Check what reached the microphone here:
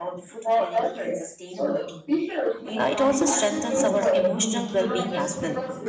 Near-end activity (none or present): present